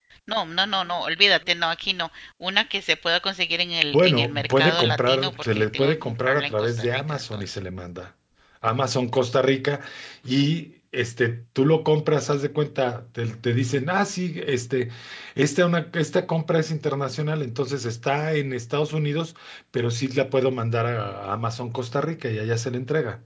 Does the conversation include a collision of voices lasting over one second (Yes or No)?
Yes